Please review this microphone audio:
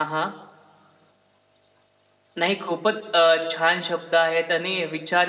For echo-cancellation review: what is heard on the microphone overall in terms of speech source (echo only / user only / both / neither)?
user only